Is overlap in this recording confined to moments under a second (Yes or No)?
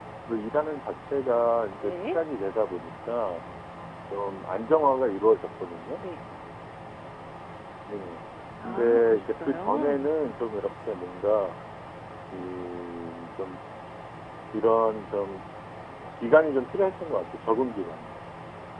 No